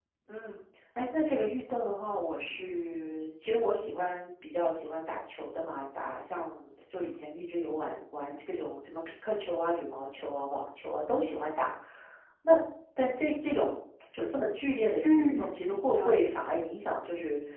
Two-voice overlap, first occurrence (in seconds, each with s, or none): 15.0 s